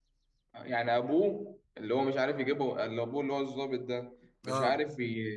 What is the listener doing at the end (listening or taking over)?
listening